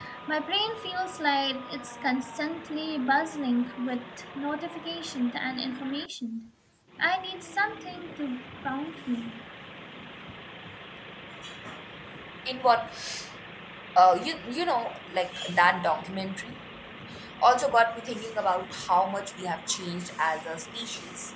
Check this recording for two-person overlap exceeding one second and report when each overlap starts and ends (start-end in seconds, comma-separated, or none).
none